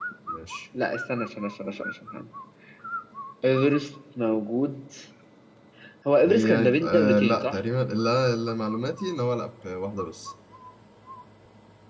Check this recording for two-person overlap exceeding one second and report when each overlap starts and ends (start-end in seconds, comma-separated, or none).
6.2-7.6